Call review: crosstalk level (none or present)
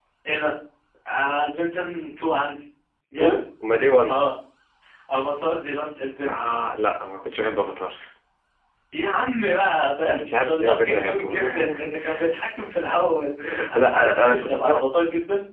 present